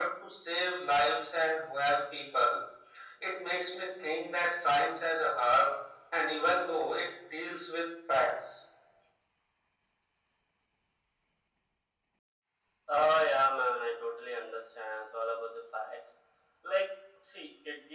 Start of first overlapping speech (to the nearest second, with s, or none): none